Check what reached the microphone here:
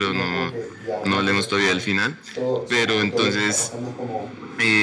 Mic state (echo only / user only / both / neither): both